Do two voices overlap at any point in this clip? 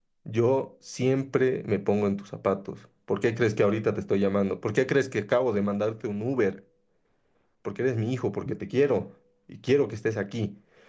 No

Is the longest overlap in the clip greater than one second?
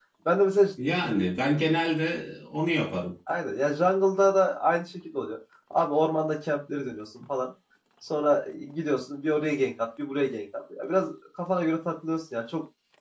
No

